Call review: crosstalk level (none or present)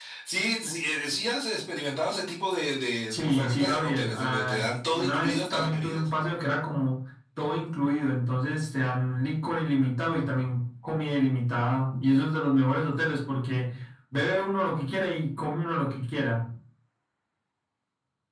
present